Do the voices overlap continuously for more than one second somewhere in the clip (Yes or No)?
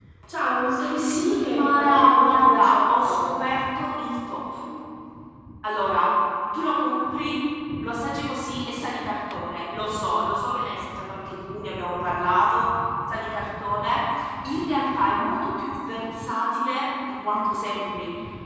Yes